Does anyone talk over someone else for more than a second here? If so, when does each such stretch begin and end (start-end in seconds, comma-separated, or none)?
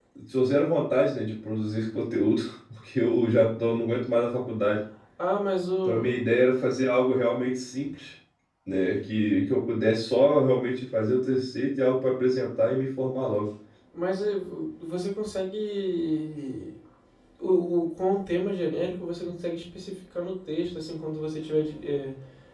none